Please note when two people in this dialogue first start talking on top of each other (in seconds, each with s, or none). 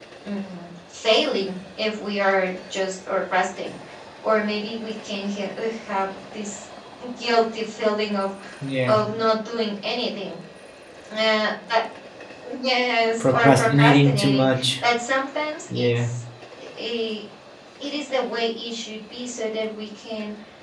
13.2 s